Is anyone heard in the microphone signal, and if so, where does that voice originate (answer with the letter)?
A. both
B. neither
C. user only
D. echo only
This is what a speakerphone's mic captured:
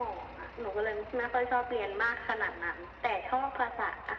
D